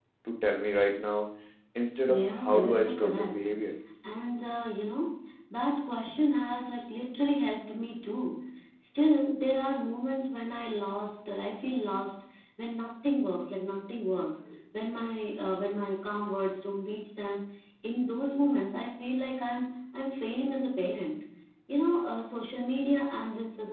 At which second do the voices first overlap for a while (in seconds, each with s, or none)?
2.1 s